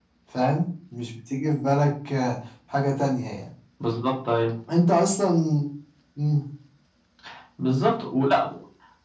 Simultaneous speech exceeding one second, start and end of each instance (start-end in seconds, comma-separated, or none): none